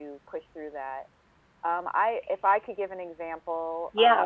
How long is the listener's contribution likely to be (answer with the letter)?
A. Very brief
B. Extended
B